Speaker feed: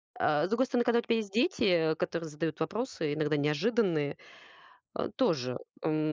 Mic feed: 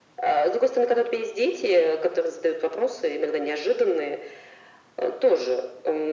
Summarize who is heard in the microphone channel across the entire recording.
echo only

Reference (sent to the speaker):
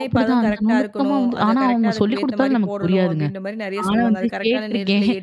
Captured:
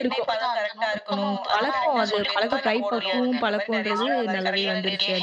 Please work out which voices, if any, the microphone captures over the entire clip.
both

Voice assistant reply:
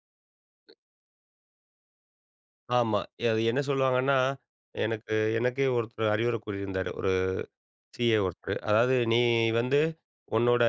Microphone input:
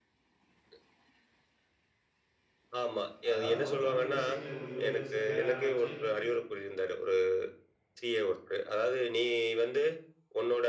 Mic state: both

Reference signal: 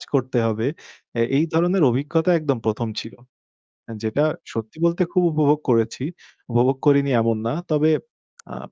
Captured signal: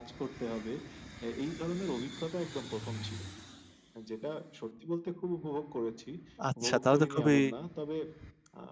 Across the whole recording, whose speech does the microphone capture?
both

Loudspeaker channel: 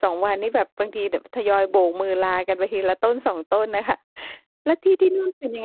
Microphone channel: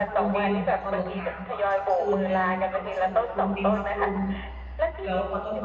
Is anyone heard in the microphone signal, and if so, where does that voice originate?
both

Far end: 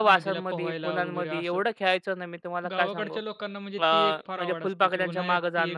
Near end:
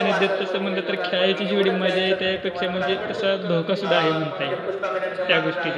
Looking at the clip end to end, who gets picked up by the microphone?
both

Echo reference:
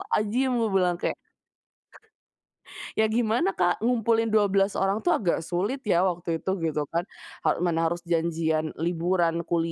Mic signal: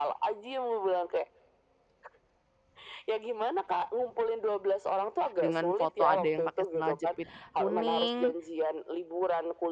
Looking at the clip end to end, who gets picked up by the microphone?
both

